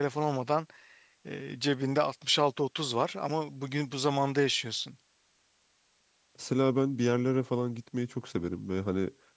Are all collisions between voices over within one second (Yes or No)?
Yes